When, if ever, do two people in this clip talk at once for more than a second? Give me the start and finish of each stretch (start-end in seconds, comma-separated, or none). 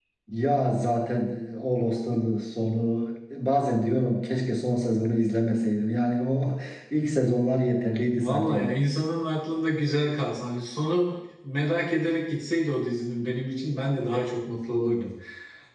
none